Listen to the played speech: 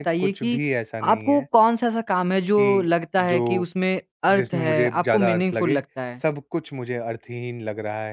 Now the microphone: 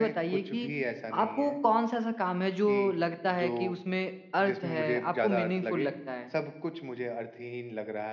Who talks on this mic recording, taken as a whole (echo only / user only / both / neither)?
echo only